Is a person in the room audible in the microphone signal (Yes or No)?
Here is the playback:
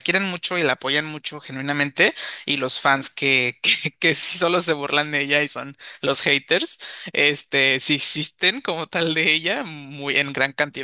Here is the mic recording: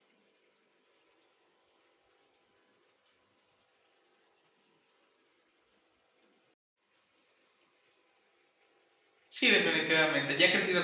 Yes